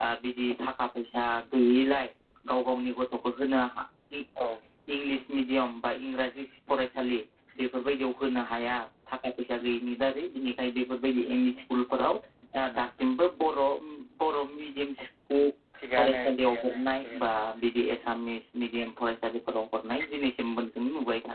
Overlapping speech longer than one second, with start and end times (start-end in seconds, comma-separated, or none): 16.0-17.3